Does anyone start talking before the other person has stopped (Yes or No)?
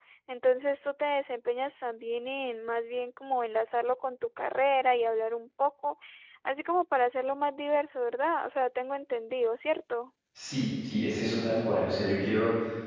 No